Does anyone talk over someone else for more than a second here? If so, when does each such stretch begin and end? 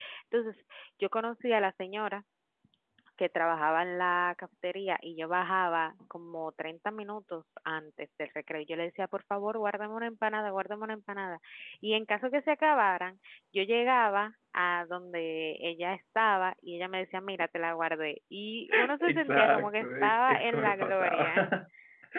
19.0-21.4

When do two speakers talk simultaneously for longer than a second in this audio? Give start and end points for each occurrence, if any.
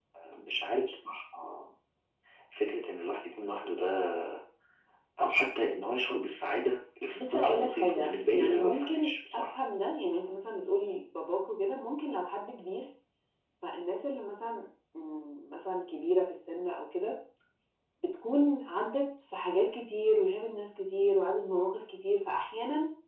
7.2-9.6

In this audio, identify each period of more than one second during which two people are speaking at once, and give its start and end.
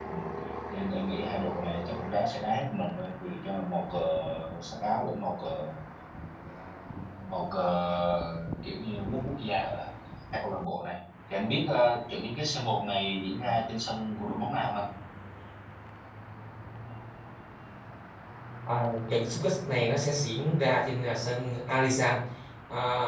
none

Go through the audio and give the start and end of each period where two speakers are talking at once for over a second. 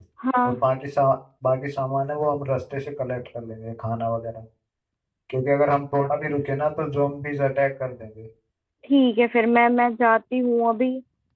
none

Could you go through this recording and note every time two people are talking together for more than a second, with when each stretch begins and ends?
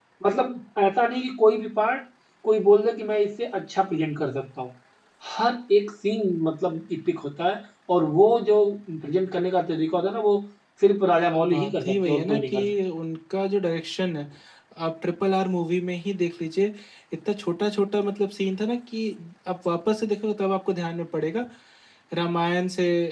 11.5-12.7

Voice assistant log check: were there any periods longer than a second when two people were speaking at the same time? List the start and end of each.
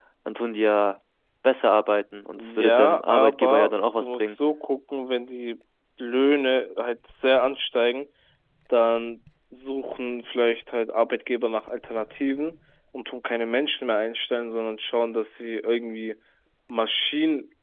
2.4-4.4

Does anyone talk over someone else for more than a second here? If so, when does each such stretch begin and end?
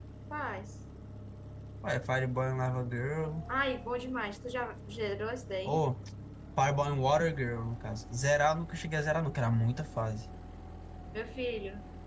none

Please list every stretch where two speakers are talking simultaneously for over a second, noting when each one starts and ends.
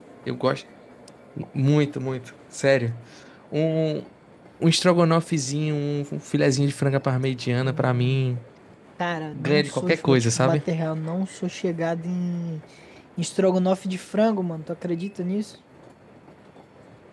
9.3-10.6

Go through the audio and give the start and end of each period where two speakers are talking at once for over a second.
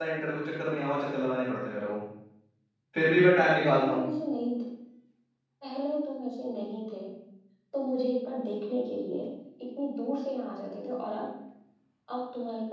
none

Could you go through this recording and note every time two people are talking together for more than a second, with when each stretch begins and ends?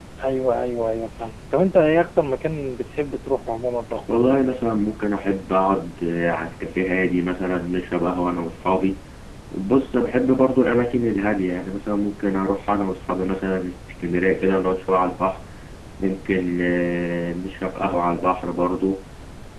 none

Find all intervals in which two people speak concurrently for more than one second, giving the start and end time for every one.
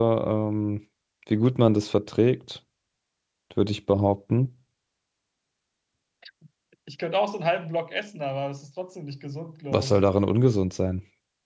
none

